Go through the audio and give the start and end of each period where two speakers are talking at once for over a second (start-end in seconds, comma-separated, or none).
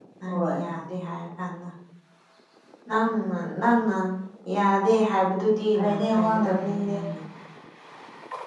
5.8-7.0